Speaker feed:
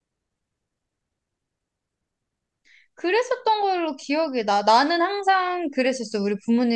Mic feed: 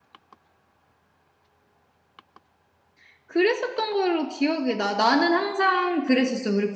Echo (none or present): present